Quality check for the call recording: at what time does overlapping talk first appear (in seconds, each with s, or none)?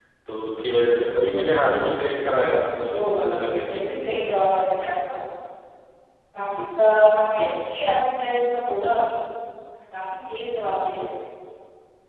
2.9 s